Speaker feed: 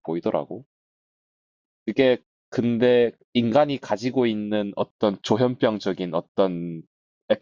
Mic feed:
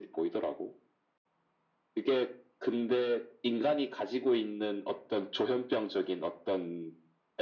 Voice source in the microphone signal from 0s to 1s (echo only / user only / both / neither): echo only